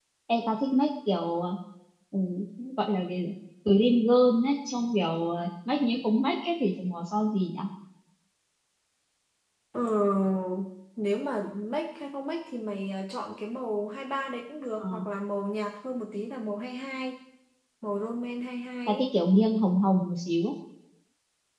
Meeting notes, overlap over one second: none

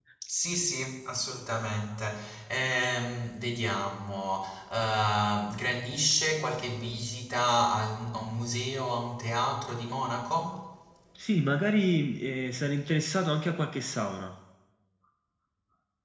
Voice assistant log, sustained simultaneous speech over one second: none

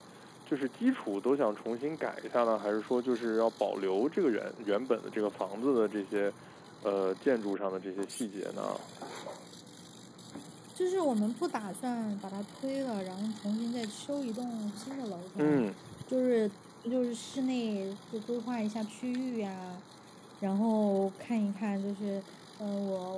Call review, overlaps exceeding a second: none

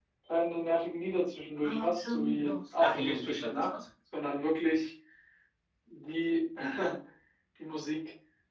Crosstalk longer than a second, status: present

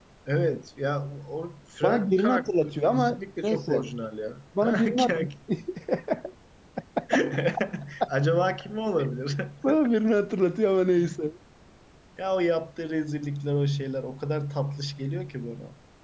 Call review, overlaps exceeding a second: present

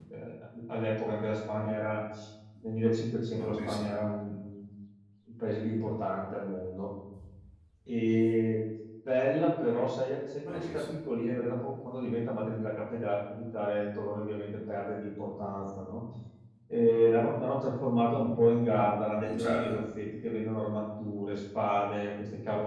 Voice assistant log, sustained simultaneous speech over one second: none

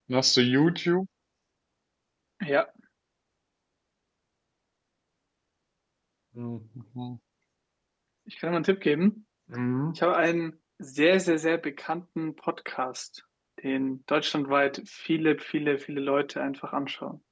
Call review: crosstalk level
none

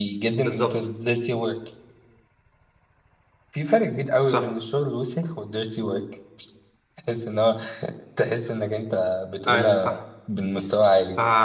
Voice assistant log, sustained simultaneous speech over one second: none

